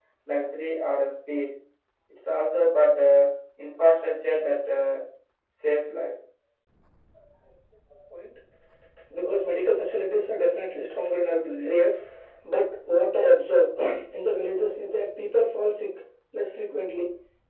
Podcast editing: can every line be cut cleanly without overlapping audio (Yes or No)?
Yes